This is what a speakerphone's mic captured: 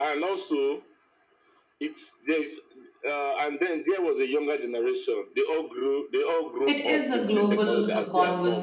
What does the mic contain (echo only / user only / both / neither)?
both